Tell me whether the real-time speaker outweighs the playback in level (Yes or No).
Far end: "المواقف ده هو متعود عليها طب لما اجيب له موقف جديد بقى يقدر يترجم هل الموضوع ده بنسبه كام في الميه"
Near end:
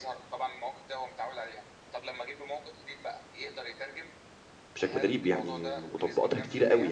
Yes